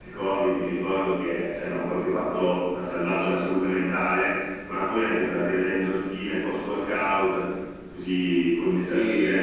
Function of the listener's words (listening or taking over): listening